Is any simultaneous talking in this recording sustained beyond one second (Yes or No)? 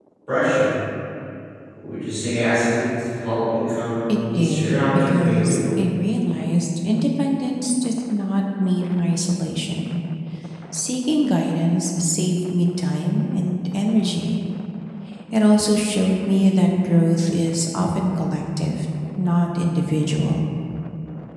Yes